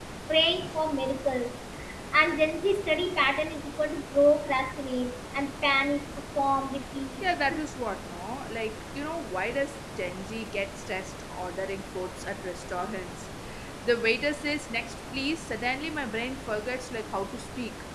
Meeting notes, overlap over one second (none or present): none